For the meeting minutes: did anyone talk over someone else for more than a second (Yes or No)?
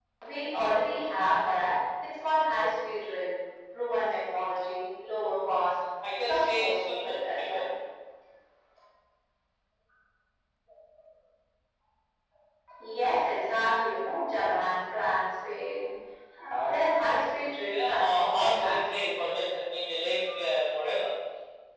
Yes